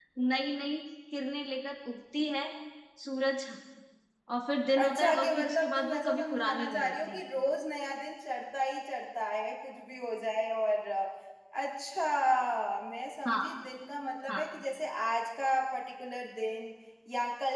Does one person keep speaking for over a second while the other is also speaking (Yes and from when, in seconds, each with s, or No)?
Yes, from 4.8 s